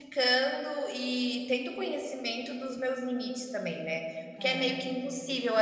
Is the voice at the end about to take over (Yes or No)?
No